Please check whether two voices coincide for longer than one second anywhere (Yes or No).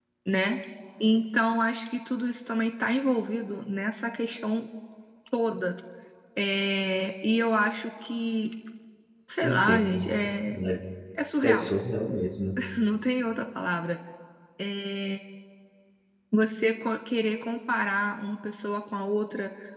No